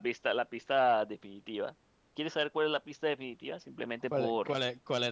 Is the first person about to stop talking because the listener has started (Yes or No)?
Yes